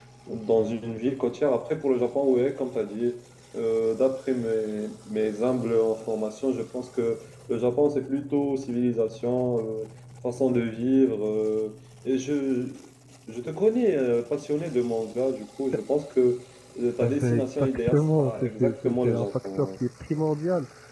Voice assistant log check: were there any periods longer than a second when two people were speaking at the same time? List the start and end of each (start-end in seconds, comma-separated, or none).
17.0-19.7